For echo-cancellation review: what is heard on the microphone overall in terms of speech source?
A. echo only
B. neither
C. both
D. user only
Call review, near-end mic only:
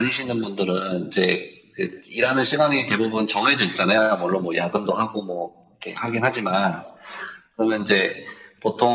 A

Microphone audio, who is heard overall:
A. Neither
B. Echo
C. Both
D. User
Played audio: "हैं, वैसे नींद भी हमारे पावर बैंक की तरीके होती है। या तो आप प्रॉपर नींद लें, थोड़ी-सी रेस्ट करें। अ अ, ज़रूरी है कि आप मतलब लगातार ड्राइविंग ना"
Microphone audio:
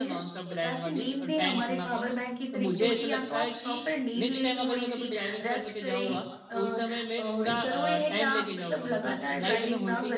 C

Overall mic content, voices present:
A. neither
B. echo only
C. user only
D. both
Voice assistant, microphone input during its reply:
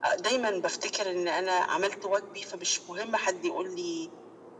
B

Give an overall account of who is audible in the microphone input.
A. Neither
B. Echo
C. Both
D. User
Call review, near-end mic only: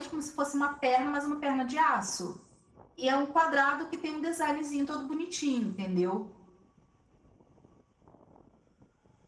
B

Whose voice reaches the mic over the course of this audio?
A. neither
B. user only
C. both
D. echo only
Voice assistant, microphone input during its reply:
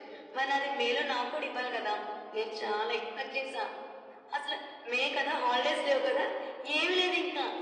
D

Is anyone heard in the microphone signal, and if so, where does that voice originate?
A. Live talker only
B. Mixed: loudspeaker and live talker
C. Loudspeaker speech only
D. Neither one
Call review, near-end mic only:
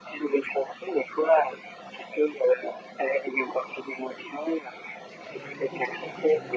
B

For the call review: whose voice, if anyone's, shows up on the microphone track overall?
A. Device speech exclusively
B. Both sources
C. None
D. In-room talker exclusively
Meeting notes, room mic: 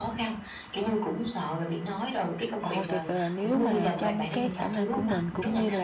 B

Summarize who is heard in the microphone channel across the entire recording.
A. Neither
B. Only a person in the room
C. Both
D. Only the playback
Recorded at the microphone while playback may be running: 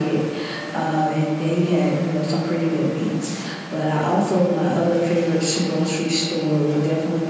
D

